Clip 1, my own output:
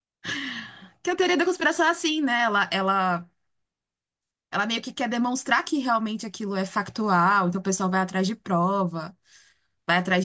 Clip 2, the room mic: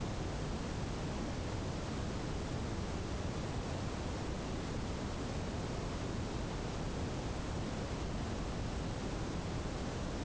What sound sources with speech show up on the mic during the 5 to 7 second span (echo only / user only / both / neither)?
neither